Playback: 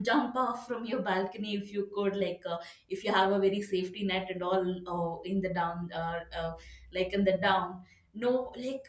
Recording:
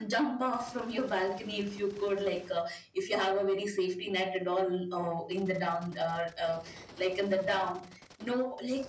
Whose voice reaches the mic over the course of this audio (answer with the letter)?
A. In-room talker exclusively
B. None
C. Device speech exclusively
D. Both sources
C